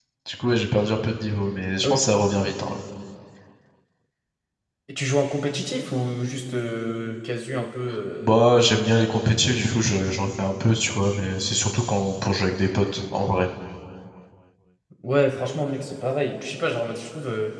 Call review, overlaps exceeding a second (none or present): none